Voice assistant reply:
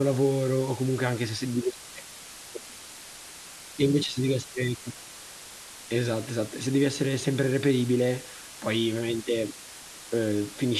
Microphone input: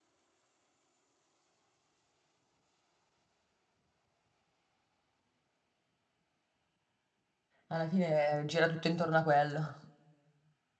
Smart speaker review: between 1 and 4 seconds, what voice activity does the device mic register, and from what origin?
neither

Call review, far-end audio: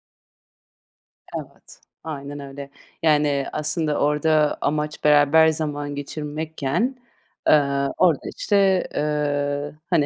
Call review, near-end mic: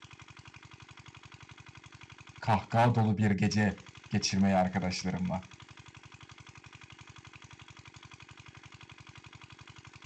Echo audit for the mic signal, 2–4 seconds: user only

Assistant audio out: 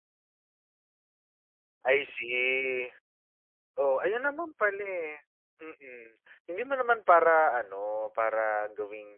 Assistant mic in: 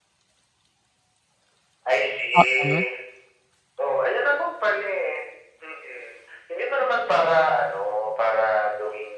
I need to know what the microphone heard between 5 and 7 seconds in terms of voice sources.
echo only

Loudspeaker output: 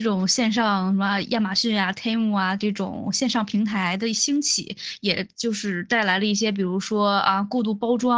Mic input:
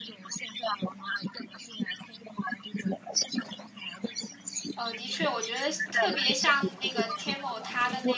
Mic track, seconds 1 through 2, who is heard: echo only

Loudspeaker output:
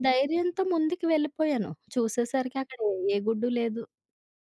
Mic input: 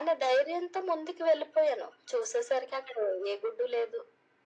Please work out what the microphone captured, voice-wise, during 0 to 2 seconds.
echo only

